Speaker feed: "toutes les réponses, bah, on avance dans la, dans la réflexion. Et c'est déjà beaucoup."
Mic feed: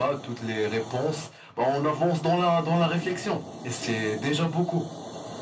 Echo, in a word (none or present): present